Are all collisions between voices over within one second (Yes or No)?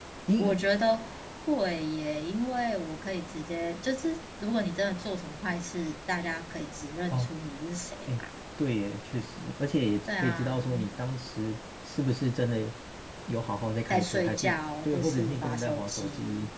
No